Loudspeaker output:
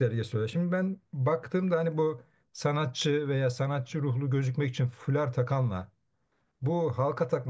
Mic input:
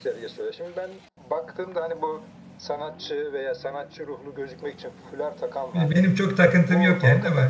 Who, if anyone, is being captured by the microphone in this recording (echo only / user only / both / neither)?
both